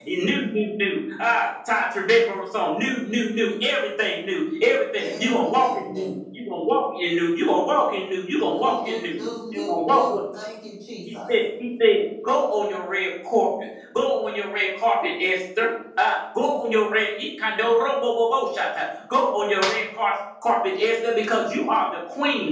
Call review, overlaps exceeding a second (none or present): present